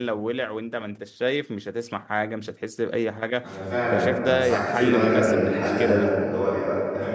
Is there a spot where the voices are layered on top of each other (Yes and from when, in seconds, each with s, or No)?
Yes, from 3.9 s